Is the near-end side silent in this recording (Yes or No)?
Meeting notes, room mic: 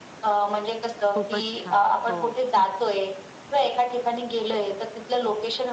No